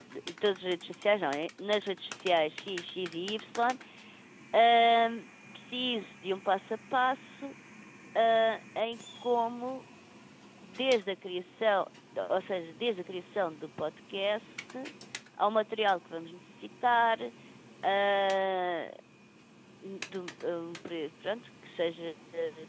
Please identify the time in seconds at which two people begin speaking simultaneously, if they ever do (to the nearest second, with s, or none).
none